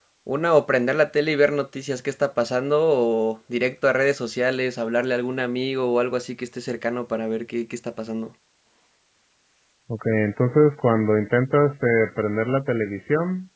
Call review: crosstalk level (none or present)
none